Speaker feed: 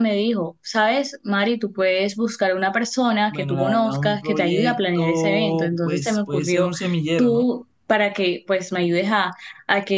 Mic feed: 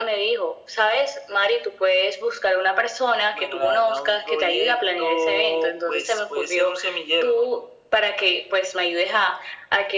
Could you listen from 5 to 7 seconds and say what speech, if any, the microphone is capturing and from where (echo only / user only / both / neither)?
echo only